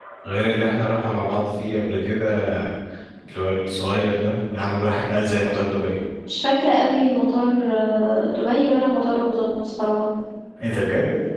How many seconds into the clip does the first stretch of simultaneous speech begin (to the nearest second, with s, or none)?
none